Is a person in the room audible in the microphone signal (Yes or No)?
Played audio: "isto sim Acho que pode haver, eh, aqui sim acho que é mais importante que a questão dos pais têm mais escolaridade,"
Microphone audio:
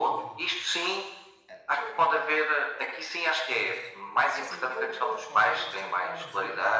Yes